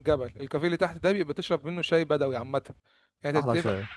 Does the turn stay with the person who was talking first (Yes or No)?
Yes